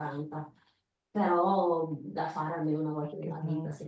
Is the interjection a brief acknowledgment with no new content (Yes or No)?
Yes